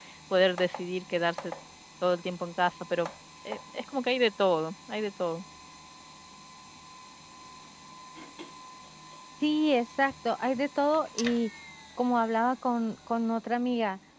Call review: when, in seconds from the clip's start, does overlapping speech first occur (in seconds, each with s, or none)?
none